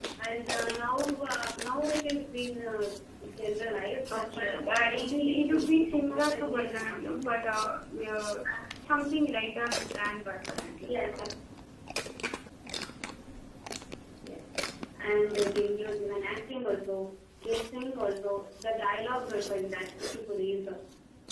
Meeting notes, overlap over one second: present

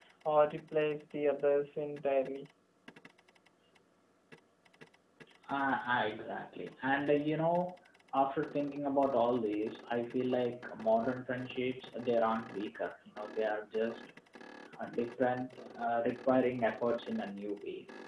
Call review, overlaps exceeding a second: none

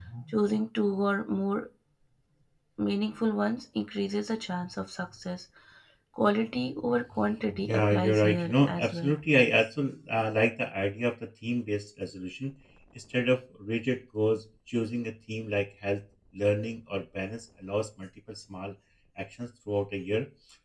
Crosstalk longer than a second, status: present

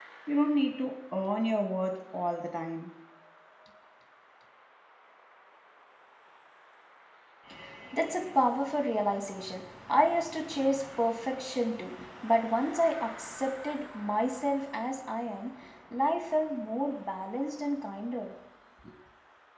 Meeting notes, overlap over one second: none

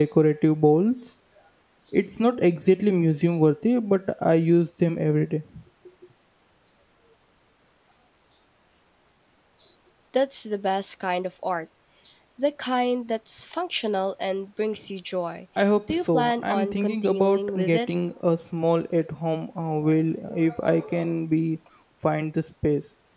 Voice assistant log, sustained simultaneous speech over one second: present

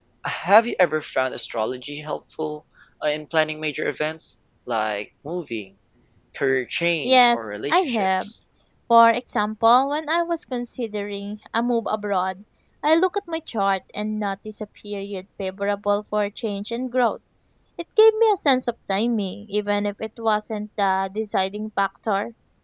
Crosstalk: present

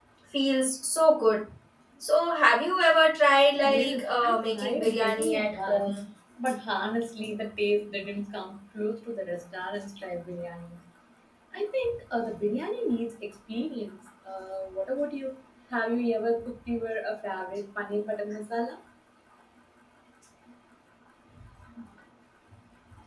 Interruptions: present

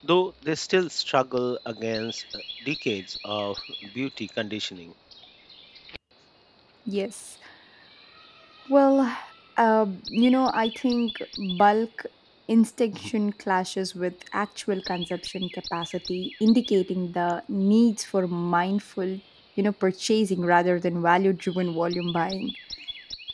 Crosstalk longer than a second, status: none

